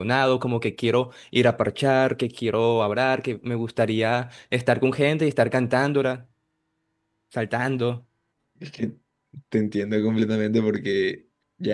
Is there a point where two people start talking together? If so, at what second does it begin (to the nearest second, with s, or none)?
none